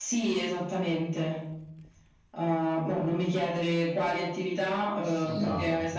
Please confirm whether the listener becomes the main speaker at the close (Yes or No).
No